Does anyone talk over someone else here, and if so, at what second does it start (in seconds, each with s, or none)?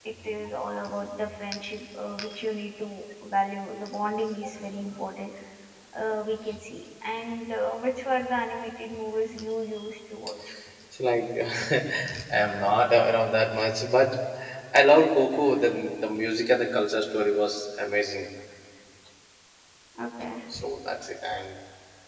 none